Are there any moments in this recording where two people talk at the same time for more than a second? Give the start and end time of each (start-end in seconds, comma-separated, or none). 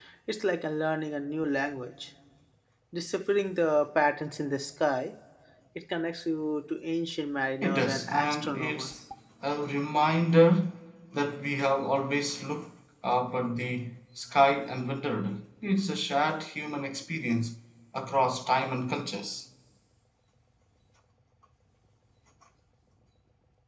7.6-8.9